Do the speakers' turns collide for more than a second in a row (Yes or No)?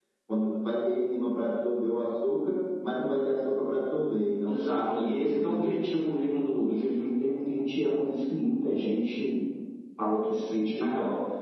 Yes